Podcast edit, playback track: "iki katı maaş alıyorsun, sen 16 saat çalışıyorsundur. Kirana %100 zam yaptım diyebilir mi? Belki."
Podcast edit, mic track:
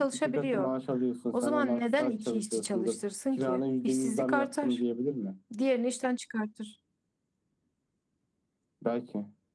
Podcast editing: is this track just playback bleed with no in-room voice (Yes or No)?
No